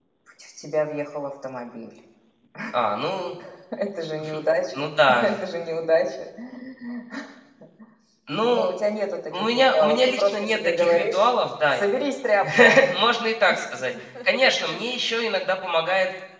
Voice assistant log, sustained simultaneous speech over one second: present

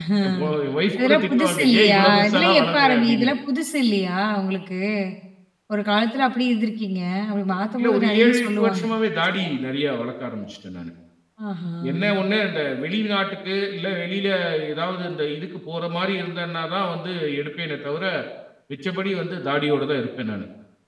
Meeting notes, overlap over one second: present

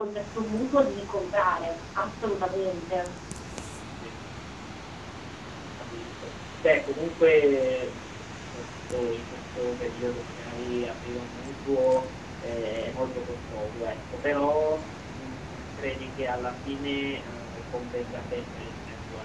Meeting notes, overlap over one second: none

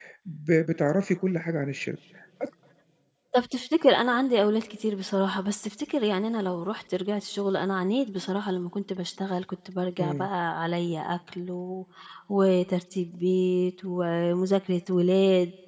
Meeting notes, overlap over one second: none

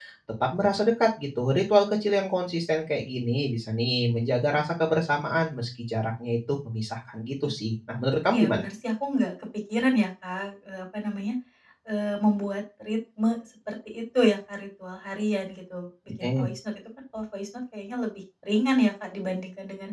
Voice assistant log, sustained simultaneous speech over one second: none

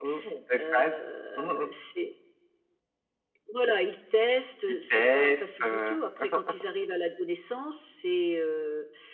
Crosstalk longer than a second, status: present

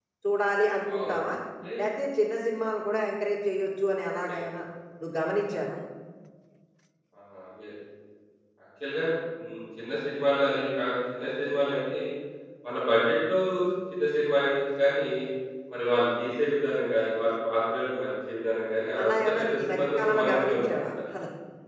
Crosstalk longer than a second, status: present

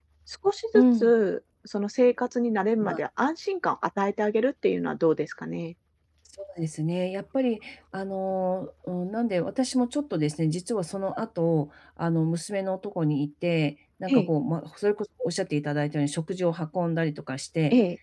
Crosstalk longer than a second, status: none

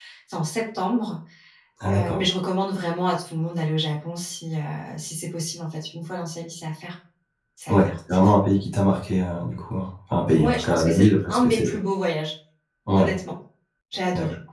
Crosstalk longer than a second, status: present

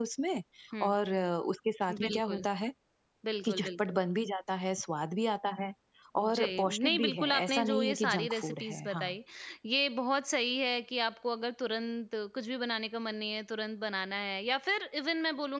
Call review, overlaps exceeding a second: present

